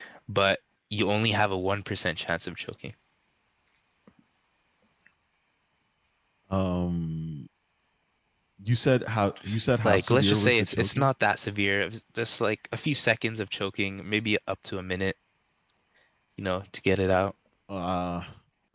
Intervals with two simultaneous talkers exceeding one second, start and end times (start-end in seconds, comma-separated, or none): 9.8-11.1